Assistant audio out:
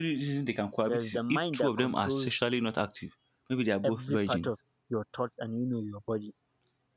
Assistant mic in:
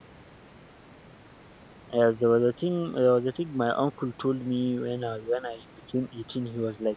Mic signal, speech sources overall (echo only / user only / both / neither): user only